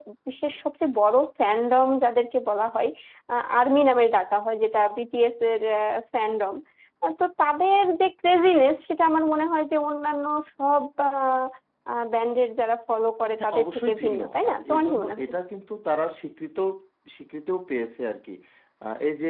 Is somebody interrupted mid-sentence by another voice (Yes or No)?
Yes